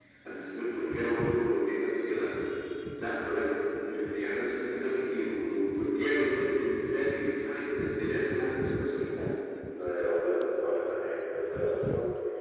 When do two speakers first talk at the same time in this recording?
none

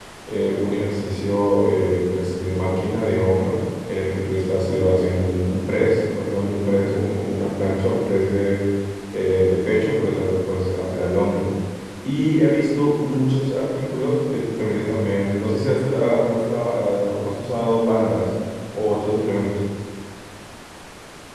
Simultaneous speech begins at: none

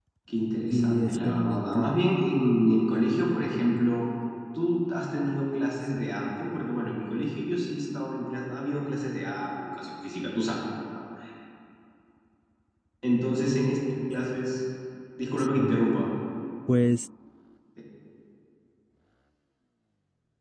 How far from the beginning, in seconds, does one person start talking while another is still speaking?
0.7 s

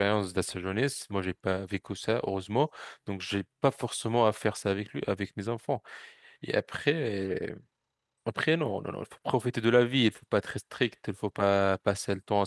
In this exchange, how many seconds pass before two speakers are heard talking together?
none

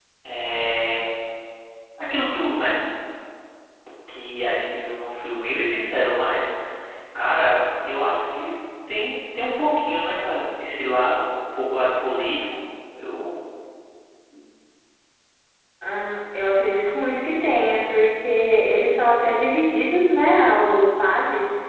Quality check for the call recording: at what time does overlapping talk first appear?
none

